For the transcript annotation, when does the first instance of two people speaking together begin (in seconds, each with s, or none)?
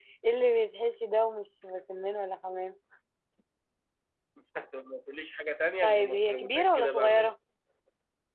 5.8 s